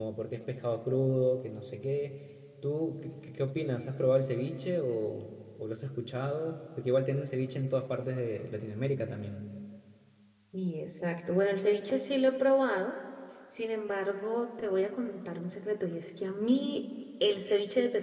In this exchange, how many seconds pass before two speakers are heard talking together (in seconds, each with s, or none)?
none